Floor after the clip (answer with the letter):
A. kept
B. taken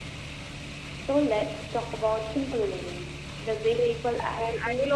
B